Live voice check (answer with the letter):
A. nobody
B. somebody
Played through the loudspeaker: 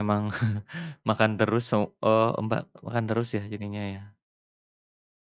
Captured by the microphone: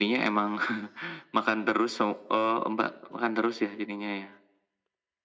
A